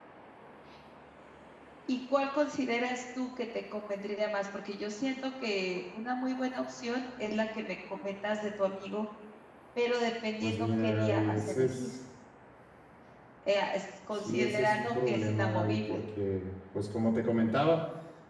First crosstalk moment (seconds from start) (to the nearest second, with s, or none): 10 s